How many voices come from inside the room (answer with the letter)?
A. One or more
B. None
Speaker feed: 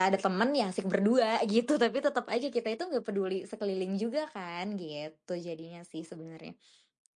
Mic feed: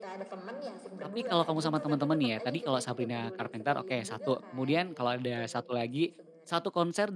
A